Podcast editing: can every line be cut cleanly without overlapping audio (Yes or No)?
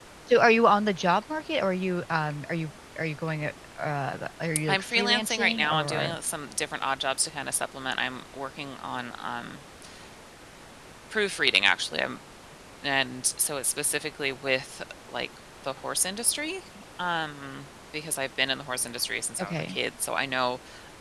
No